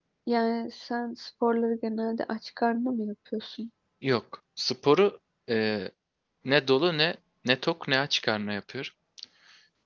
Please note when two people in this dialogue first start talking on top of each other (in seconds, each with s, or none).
none